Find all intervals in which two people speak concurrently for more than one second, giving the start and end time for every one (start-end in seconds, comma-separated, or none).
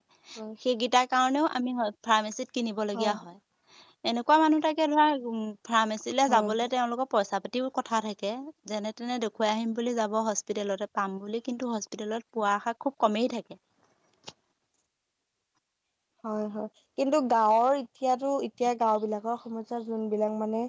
none